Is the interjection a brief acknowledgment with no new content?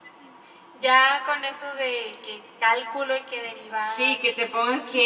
No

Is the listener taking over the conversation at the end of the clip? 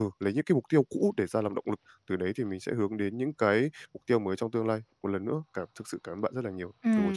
Yes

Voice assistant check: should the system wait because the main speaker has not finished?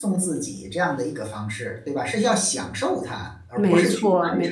No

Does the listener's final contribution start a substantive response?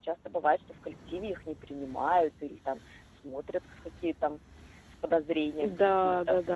Yes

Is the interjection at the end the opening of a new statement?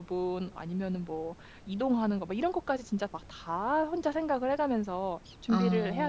No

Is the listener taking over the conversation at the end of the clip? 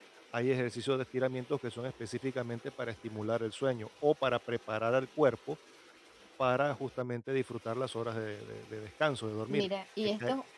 Yes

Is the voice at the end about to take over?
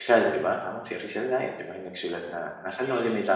Yes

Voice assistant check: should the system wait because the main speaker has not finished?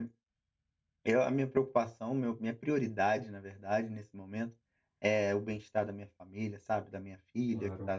Yes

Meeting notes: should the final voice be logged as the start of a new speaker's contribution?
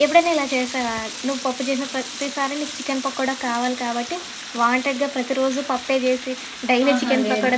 Yes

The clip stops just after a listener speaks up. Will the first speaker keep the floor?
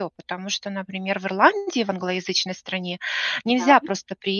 Yes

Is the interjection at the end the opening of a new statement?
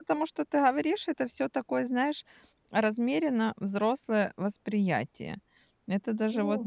No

